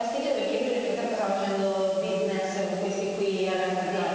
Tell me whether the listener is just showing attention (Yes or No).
No